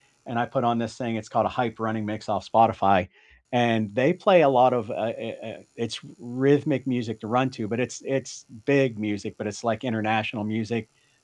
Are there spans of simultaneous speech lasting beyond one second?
No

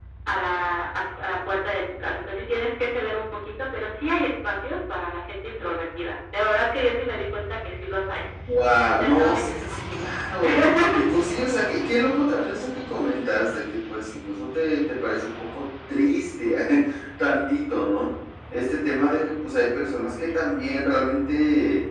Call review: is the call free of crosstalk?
No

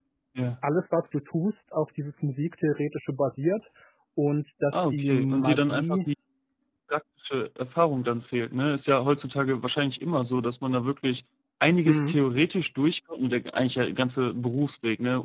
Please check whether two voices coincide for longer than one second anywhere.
Yes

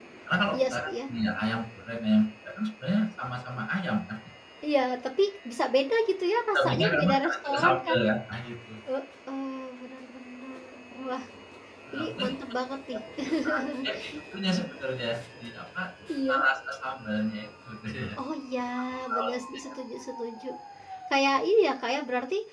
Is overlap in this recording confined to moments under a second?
No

